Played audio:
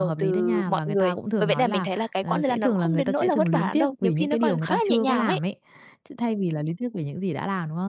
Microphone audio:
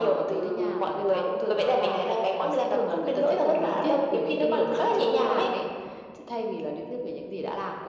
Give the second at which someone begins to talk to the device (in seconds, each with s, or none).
none